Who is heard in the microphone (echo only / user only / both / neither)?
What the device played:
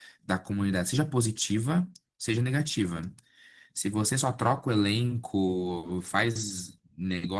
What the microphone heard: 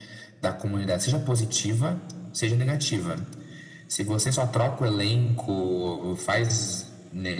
echo only